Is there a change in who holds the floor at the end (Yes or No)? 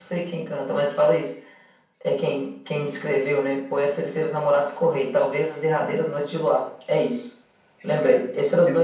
No